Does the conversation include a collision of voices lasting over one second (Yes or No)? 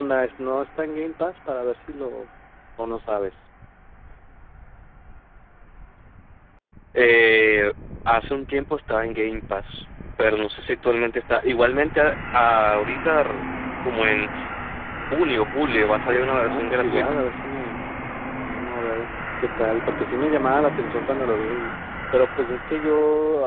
Yes